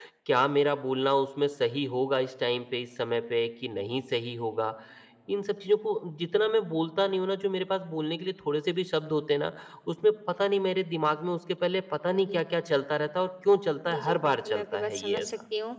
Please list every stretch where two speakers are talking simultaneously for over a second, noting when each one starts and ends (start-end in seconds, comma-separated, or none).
13.9-15.3